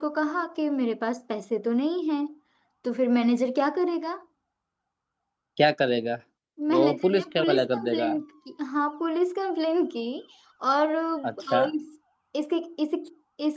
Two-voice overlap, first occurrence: 6.8 s

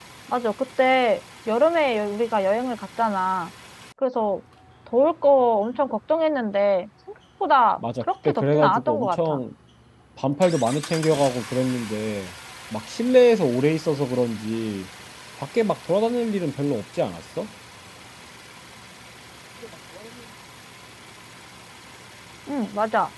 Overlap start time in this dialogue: 7.8 s

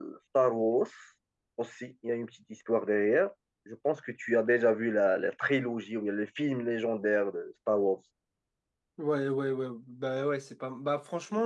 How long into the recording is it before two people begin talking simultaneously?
none

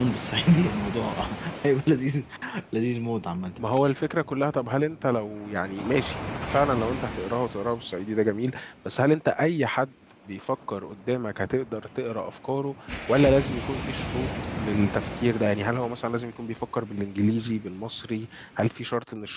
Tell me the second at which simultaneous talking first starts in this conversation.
none

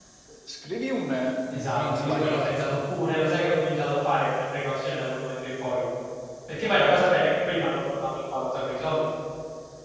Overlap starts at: 1.5 s

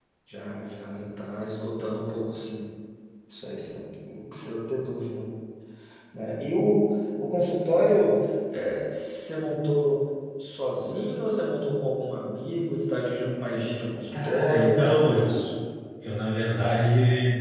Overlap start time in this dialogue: 14.1 s

